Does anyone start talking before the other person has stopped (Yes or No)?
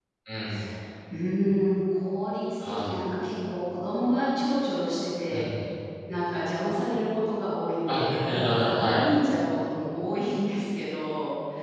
Yes